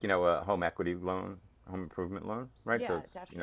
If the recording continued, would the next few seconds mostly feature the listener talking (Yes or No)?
No